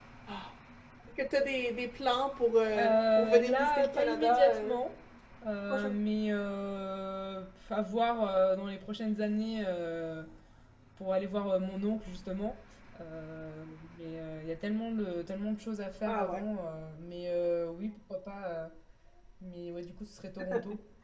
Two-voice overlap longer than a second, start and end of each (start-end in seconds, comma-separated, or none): 2.8-4.8